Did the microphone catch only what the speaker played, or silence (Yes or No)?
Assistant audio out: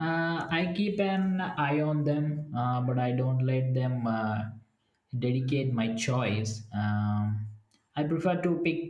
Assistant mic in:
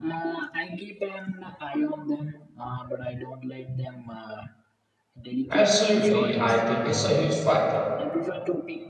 No